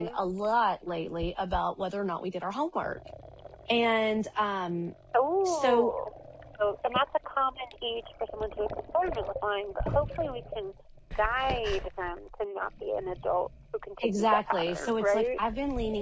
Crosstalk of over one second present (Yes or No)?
Yes